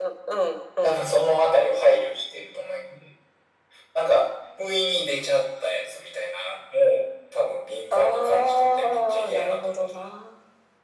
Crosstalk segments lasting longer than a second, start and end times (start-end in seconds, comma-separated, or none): 7.9-10.0